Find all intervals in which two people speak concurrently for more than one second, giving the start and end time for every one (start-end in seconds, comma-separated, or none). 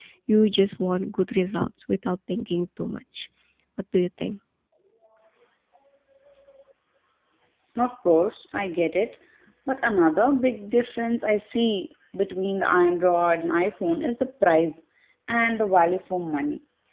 none